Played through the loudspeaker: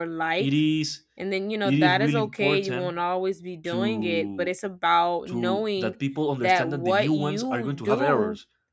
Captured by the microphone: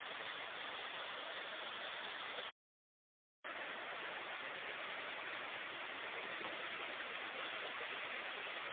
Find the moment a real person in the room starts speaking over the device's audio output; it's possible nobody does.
none

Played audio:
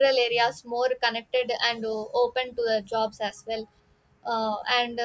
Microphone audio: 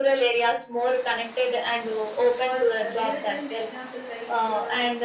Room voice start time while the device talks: 2.4 s

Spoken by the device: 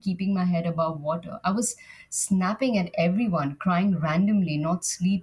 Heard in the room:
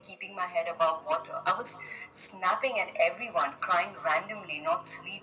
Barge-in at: none

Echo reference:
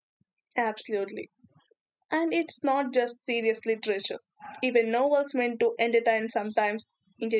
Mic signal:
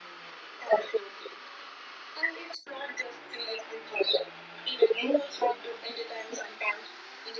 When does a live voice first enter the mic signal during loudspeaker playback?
none

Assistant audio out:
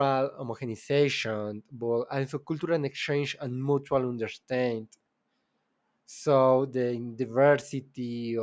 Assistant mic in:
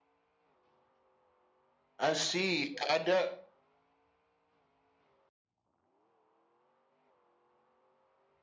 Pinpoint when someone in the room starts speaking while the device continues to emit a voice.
2.0 s

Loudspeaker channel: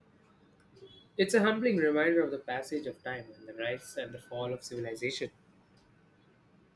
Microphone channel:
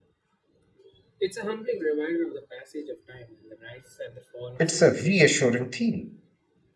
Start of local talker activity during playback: 4.6 s

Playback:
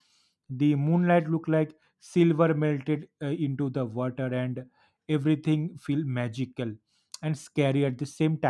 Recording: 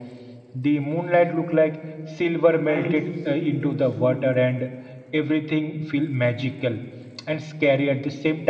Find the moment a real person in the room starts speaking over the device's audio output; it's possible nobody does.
2.7 s

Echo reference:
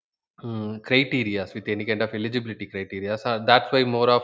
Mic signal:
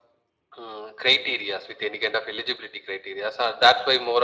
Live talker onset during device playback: none

